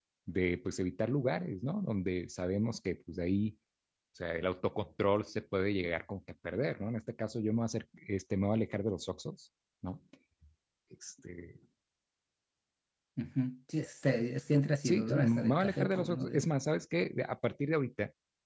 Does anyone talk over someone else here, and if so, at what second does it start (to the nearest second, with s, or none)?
15 s